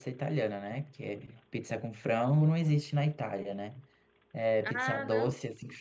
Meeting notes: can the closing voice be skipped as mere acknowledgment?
Yes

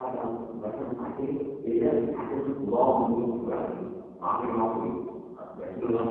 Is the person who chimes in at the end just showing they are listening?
Yes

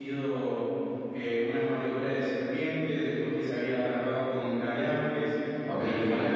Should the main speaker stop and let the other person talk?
Yes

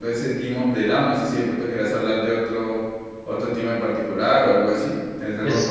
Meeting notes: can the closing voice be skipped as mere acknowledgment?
No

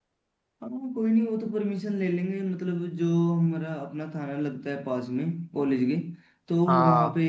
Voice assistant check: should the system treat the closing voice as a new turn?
No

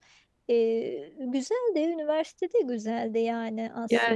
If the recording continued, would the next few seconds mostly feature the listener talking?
Yes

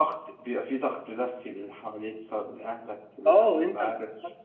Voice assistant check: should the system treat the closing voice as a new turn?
Yes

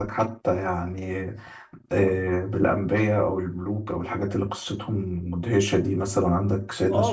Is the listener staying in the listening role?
No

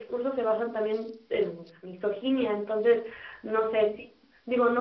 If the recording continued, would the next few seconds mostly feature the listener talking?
No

